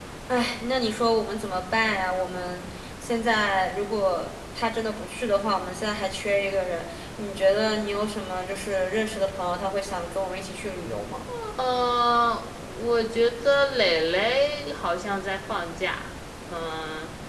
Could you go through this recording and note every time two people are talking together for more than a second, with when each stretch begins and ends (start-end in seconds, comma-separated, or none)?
none